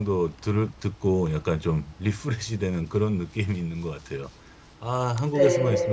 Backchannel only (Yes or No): Yes